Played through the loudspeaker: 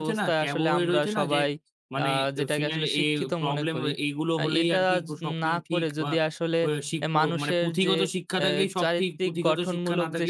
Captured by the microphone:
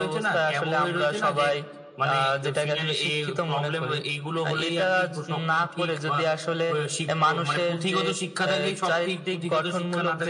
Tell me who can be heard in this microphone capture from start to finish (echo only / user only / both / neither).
echo only